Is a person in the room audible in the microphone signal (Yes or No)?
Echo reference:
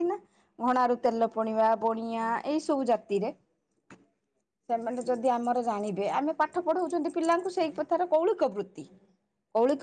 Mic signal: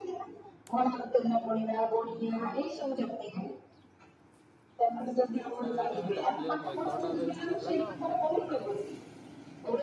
Yes